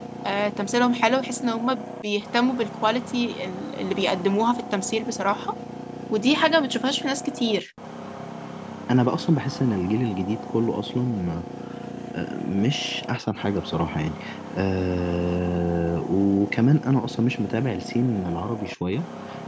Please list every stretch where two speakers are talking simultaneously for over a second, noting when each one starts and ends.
none

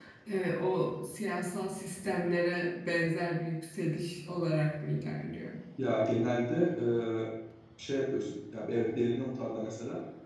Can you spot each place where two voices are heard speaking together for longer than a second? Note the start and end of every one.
none

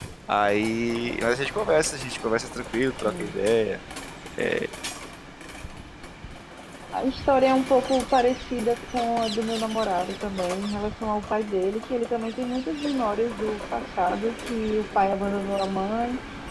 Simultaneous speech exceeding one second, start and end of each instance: none

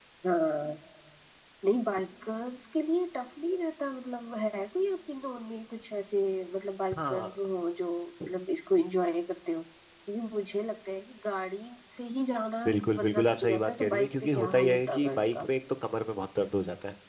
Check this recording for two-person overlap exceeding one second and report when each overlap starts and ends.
12.7-15.5

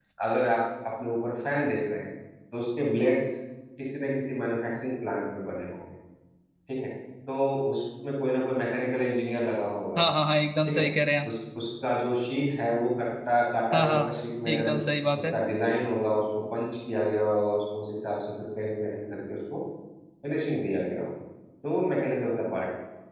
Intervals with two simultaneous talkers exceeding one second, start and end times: none

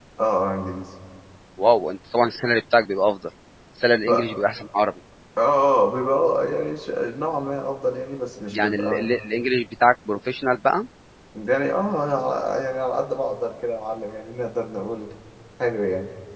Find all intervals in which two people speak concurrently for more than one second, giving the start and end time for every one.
none

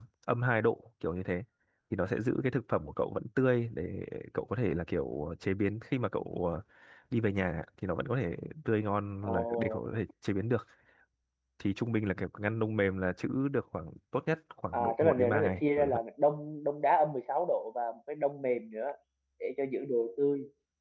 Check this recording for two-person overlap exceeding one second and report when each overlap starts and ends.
14.7-16.0

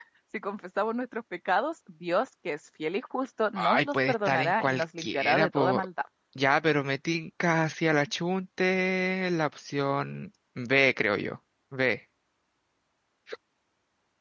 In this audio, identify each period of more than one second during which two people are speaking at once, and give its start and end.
3.6-5.8

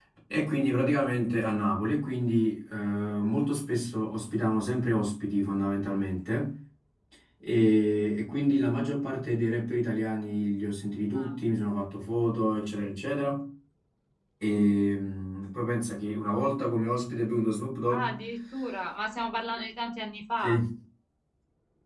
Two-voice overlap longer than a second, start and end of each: none

